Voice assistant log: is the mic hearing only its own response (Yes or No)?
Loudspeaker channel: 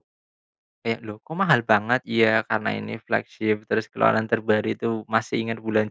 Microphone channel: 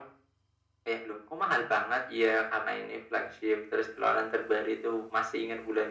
Yes